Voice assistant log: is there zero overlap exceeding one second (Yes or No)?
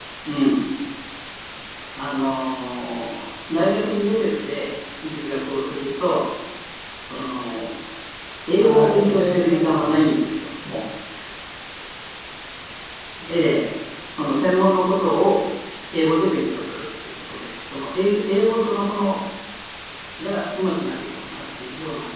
No